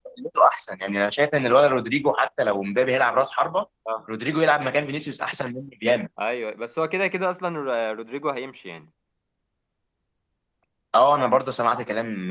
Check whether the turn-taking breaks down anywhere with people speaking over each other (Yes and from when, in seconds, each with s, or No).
No